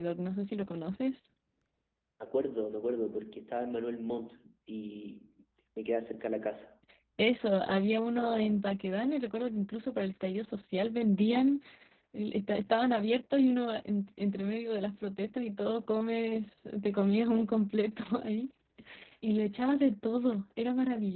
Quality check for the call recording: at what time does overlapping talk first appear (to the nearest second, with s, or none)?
none